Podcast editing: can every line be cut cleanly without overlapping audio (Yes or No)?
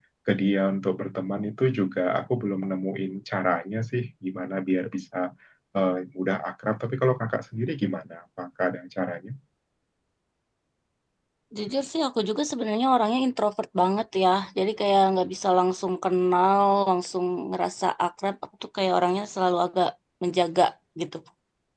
Yes